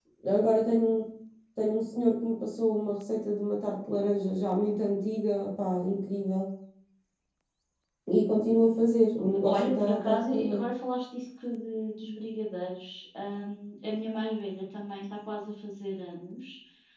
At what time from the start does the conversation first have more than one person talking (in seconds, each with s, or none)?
9.4 s